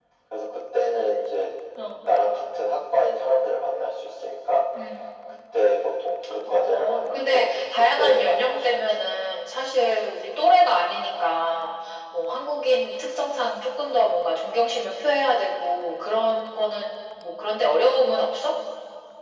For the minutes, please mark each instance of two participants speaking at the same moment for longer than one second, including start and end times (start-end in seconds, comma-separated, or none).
6.5-9.0